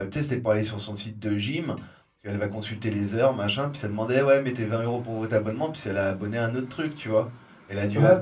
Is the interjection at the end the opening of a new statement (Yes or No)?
No